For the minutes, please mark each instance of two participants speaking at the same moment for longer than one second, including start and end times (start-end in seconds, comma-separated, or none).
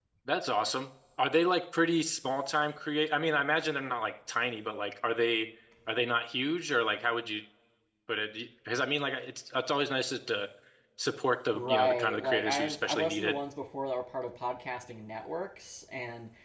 11.5-13.3